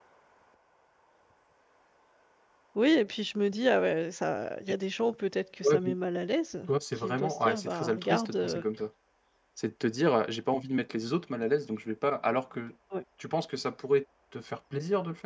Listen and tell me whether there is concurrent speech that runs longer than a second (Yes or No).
Yes